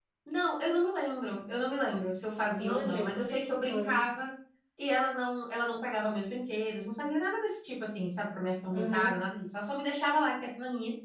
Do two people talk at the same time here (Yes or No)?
Yes